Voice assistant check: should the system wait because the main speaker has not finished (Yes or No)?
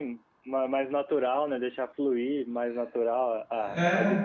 Yes